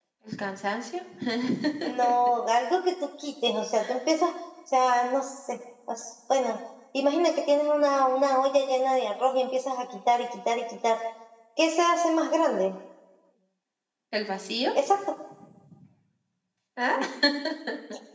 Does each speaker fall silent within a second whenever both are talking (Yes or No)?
Yes